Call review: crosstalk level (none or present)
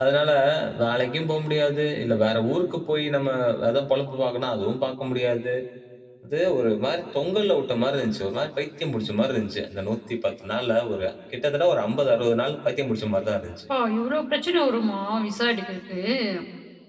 none